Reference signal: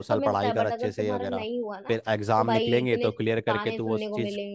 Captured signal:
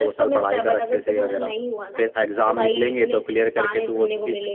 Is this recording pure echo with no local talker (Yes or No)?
Yes